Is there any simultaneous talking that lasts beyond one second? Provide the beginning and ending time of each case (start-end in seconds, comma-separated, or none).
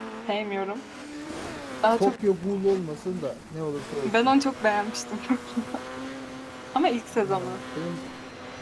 none